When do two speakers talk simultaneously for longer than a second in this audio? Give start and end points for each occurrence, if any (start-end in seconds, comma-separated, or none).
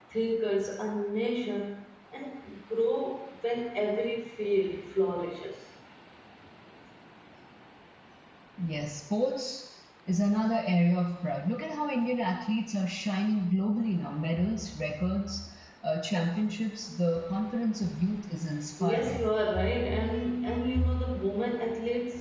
none